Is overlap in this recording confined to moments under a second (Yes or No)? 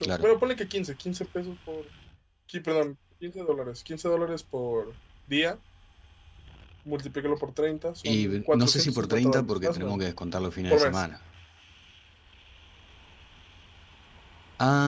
No